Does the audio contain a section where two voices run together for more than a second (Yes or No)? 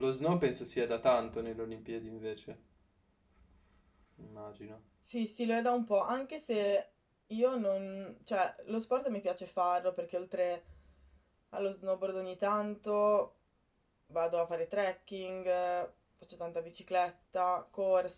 No